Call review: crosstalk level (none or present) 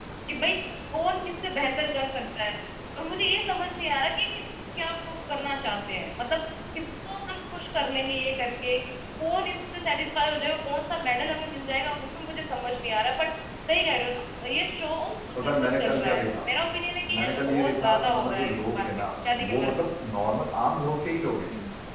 present